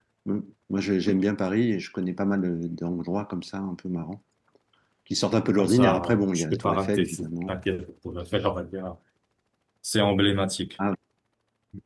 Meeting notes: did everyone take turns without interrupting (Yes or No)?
No